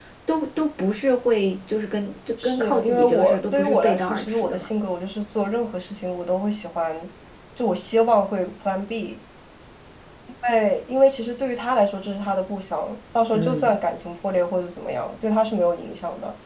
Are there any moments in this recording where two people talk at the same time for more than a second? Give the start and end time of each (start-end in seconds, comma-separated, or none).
2.4-4.7